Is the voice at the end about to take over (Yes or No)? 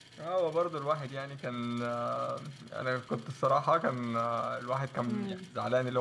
No